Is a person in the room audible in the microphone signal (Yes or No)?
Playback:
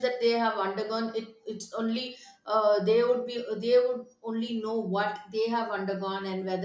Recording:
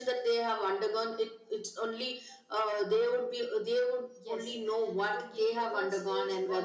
Yes